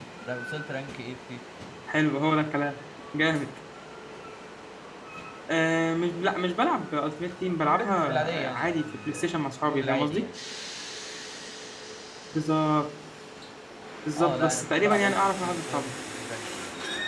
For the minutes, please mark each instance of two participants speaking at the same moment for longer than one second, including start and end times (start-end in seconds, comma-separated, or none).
7.6-10.2, 14.2-15.8